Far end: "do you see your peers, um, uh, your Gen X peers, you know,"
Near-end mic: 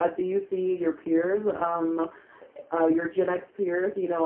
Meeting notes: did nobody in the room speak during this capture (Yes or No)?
Yes